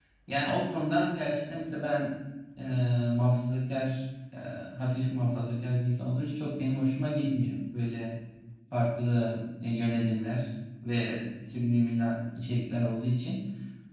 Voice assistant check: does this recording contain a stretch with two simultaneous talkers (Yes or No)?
No